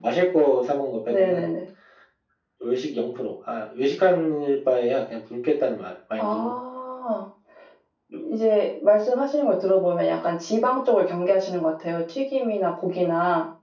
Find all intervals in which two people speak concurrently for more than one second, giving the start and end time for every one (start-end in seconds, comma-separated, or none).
none